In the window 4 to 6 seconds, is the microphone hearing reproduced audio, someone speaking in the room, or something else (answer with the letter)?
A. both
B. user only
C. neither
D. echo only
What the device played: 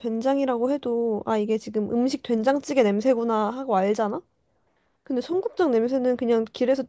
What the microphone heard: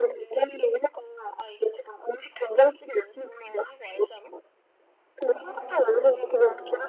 A